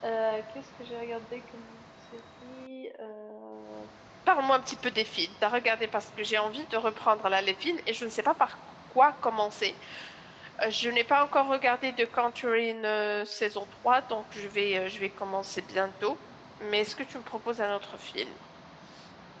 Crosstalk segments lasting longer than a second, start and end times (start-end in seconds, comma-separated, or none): none